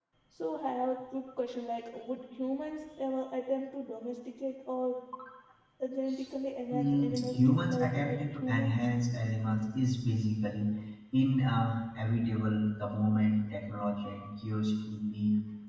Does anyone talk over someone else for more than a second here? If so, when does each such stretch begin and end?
6.7-8.7

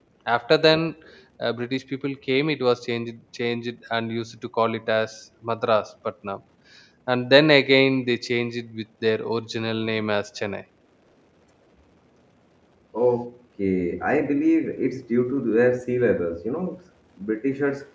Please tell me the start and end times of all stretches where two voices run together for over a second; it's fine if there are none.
none

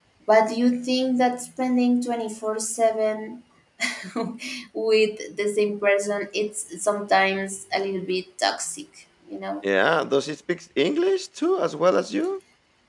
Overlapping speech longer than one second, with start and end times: none

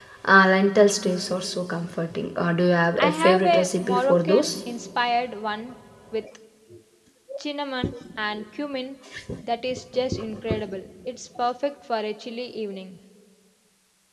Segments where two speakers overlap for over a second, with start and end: 3.0-4.5

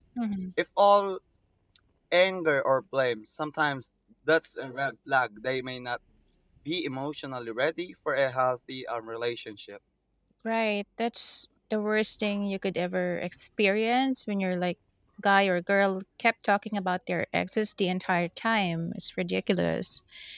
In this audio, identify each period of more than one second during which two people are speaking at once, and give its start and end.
none

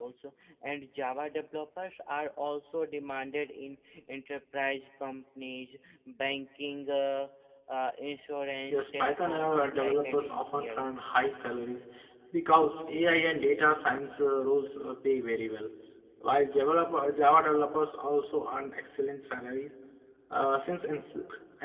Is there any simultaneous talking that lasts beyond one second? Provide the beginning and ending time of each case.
8.7-10.9

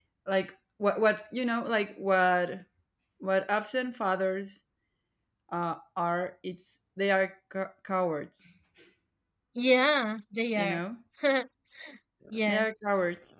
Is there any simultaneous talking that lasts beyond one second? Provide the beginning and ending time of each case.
none

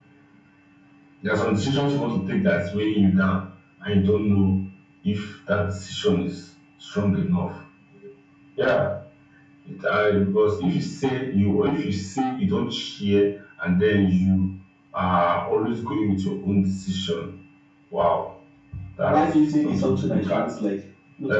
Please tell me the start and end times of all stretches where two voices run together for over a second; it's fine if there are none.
19.1-20.5

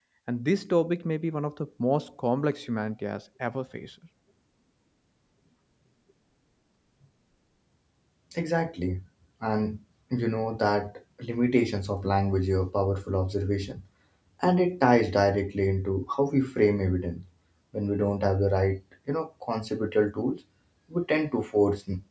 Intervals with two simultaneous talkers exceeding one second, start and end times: none

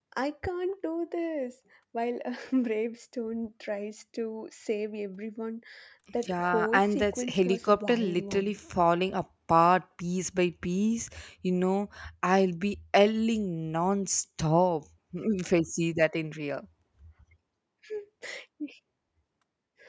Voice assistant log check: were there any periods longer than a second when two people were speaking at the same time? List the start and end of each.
6.3-8.6

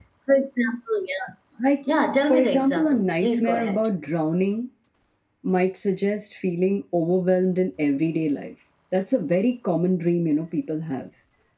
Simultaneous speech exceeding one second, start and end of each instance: 2.3-3.8

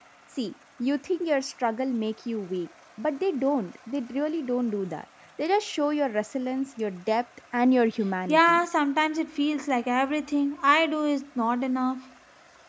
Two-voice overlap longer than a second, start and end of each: none

